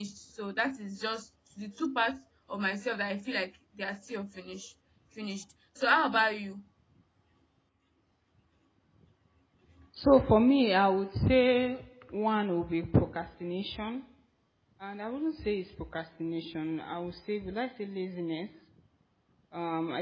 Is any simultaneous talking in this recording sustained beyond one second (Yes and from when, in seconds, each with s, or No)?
No